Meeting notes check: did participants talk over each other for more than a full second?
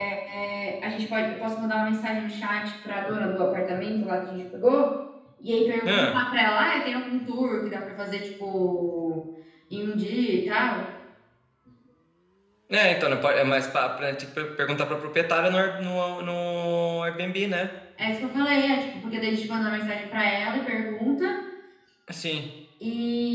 No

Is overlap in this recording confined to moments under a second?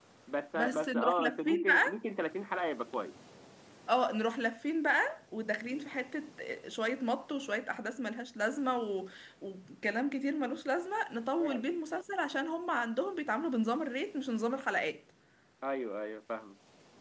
No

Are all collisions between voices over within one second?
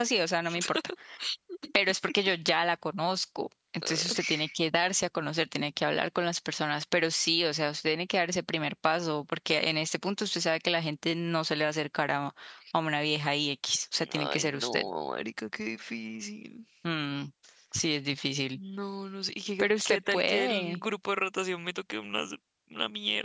No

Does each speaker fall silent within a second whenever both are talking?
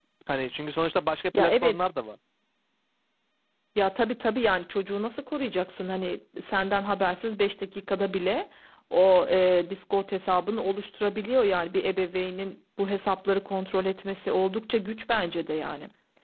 Yes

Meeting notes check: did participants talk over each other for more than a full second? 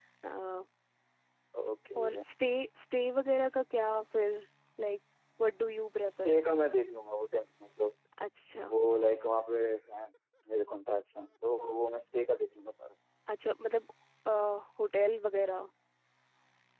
No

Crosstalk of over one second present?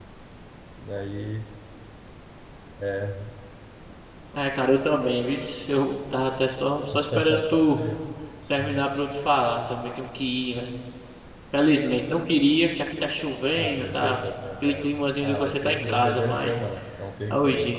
Yes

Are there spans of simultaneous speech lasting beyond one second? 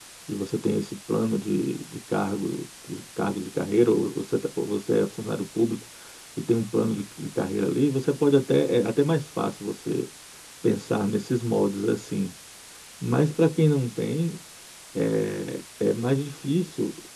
No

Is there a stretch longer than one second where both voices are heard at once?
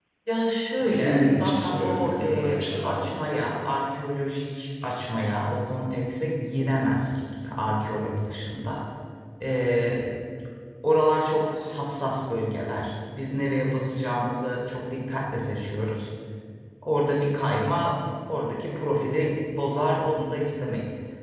Yes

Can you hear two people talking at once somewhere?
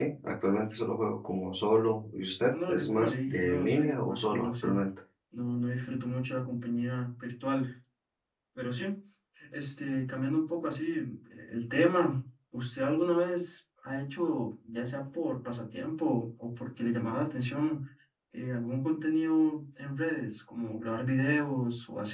Yes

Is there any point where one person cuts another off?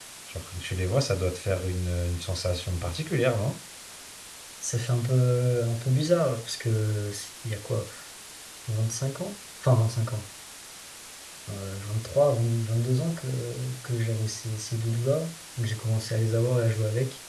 No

